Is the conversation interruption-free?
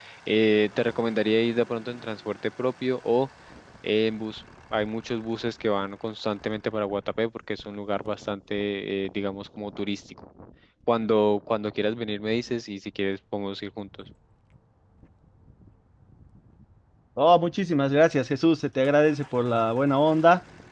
Yes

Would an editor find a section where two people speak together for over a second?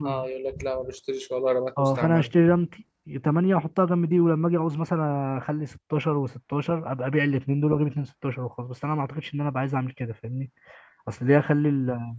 No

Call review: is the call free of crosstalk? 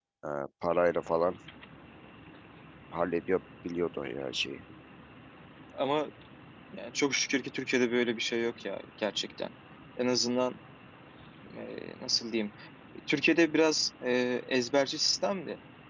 Yes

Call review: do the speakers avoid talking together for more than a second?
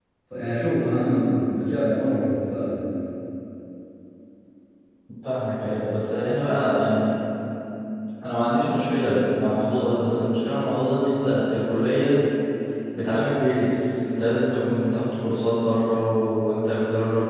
Yes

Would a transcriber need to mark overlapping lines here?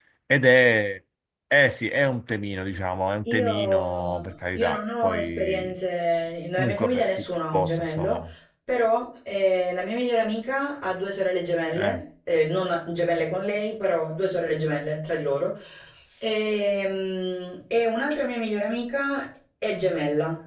Yes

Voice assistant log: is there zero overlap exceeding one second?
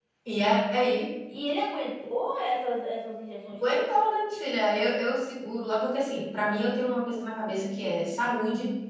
Yes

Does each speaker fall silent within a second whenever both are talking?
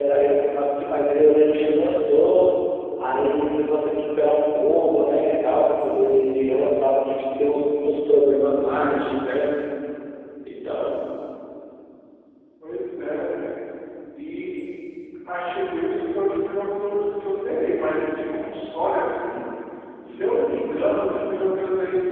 Yes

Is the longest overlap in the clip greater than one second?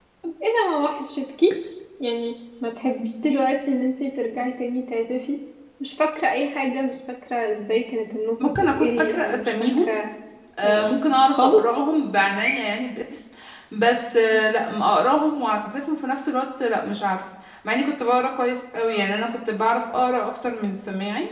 Yes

